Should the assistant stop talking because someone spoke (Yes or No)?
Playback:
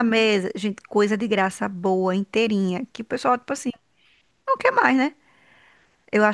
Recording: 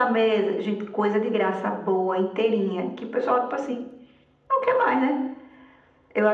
No